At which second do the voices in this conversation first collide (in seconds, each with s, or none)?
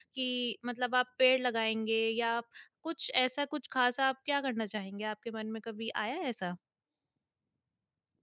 none